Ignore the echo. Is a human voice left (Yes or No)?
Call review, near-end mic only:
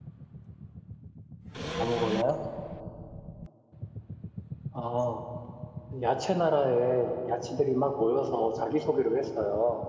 Yes